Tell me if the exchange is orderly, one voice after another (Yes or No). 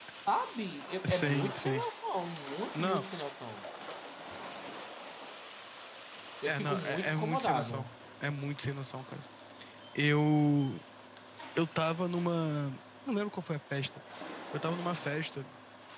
No